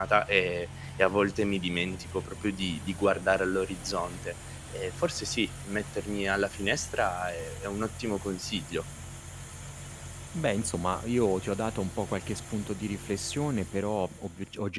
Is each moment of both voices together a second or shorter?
Yes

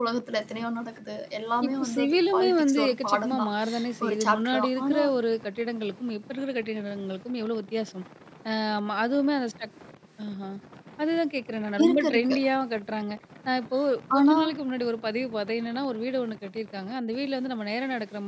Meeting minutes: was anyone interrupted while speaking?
Yes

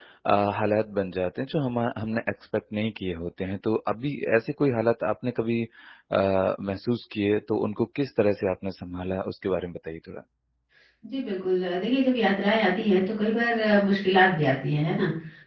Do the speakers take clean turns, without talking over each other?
Yes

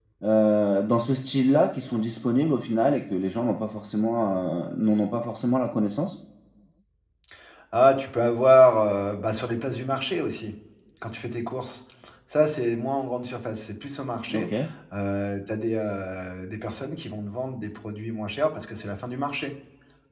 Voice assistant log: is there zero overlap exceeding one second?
Yes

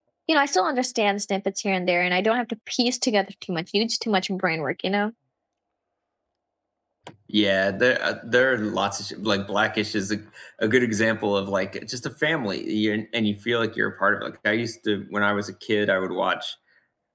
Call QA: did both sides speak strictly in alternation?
Yes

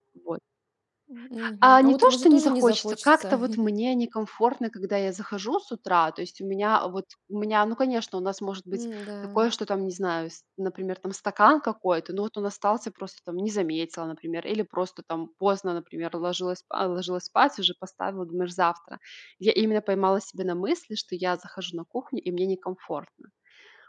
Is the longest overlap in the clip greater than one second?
Yes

